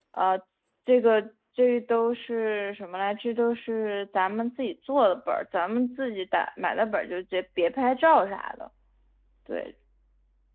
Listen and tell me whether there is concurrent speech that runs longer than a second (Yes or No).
No